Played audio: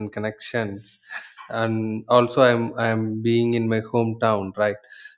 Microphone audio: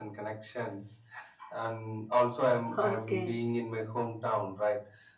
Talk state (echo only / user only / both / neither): both